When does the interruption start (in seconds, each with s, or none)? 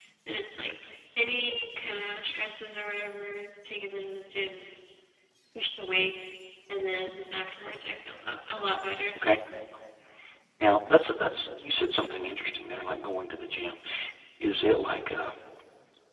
none